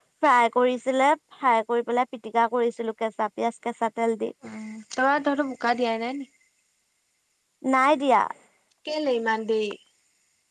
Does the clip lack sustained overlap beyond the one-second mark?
Yes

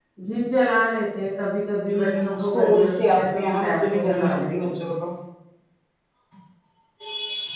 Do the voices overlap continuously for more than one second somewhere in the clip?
Yes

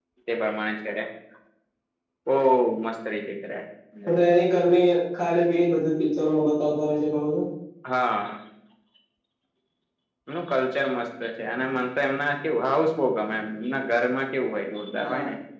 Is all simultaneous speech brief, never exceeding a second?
Yes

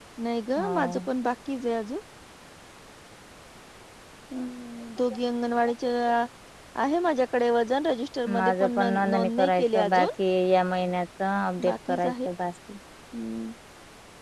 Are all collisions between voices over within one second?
No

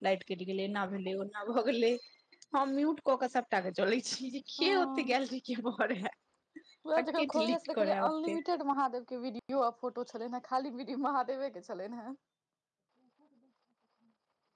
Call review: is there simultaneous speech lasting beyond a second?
Yes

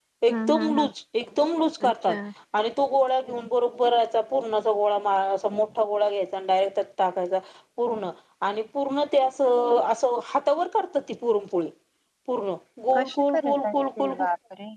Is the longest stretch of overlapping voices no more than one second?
No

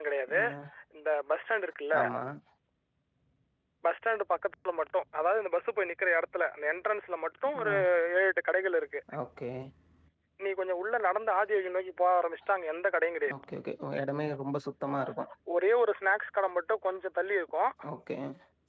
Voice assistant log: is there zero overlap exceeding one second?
Yes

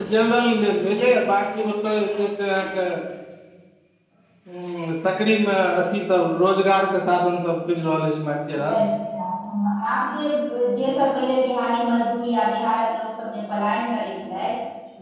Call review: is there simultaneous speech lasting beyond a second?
No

